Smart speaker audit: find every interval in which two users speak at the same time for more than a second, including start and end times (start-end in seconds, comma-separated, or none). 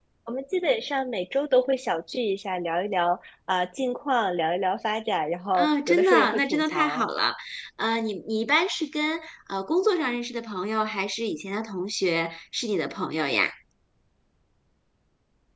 5.5-7.0